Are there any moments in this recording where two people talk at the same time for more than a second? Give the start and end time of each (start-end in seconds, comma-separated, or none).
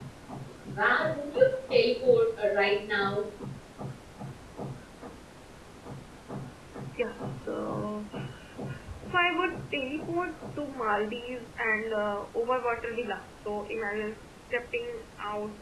none